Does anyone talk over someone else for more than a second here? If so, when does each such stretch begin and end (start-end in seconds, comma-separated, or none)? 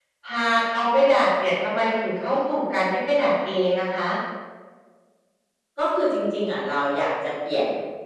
none